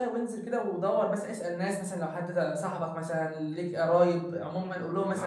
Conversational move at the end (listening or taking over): taking over